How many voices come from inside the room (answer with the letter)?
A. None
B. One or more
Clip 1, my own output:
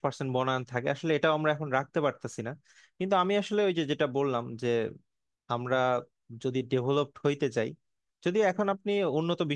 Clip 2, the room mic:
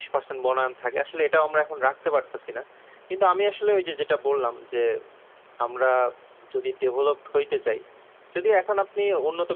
A